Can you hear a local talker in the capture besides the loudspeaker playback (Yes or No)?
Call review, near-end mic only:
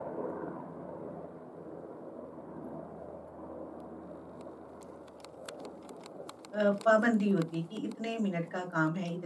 Yes